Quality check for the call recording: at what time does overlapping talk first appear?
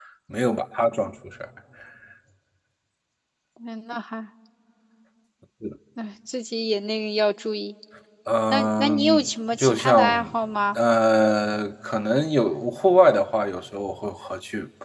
8.5 s

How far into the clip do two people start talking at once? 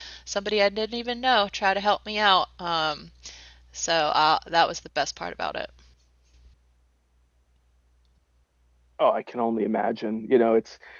none

